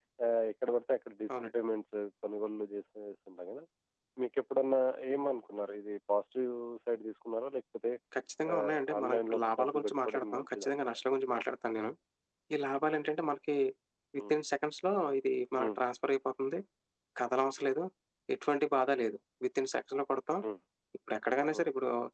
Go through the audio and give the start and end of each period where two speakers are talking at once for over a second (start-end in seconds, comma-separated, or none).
8.5-10.7